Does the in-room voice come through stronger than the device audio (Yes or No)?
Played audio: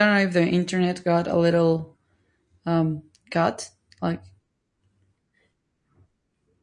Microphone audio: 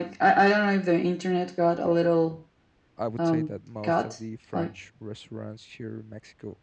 No